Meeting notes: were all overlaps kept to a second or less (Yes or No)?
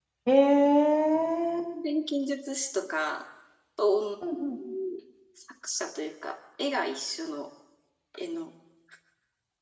Yes